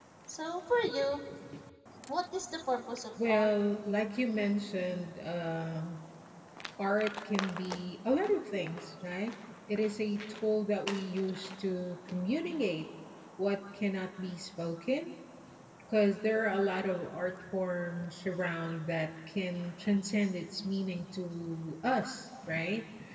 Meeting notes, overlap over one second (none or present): none